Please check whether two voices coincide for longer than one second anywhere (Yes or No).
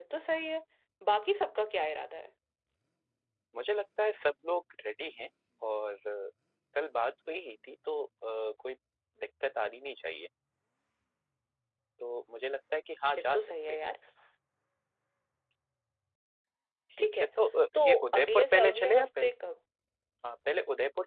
Yes